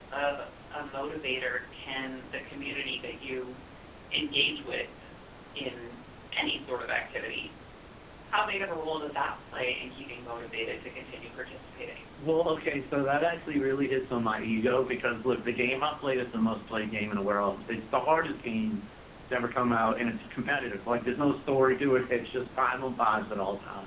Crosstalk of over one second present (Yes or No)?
No